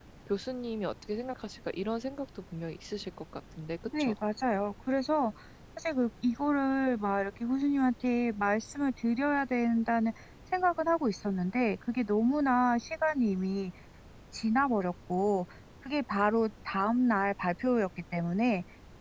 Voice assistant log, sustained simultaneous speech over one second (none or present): none